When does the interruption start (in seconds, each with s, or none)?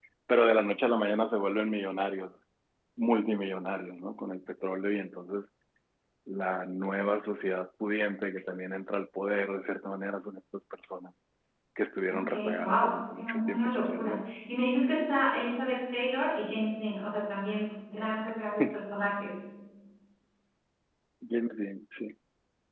12.1 s